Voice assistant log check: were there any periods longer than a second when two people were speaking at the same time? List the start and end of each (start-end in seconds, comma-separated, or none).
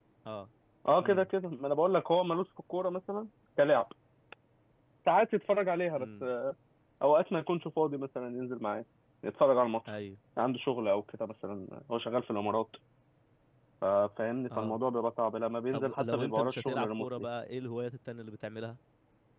15.7-17.2